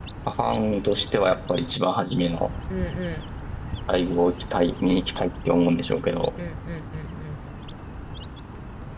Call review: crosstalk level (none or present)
none